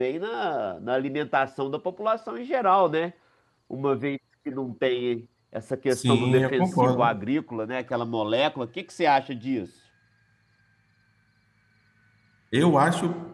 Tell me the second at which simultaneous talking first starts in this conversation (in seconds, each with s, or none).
5.9 s